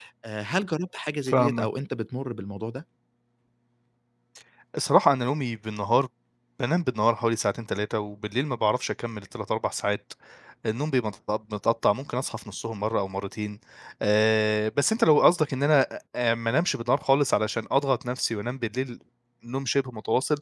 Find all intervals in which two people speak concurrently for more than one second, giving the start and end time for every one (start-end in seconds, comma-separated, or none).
none